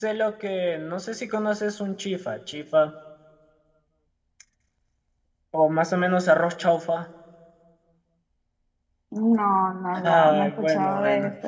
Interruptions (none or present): present